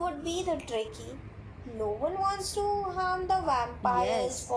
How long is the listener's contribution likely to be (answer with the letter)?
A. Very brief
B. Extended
B